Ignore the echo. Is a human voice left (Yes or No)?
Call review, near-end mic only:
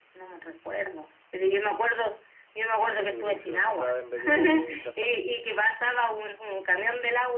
Yes